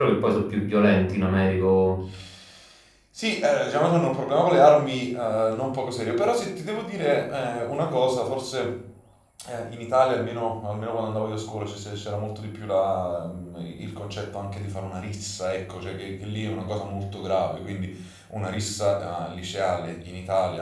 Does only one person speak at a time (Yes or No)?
Yes